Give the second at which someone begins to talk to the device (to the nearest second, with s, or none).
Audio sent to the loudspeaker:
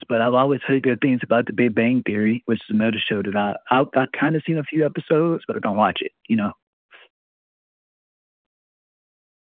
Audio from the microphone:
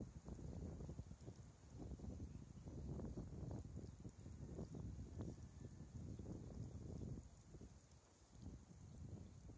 none